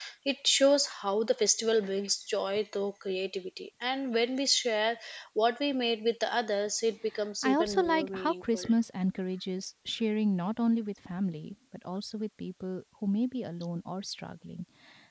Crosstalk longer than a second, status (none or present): present